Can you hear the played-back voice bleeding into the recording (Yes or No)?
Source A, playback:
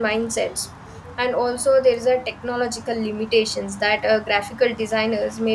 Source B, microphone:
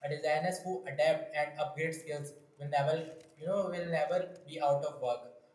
No